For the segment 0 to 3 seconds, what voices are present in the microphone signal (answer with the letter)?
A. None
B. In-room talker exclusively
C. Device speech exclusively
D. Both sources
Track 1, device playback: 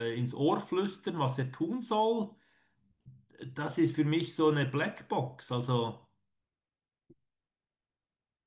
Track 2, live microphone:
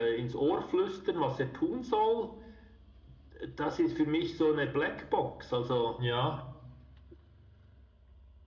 C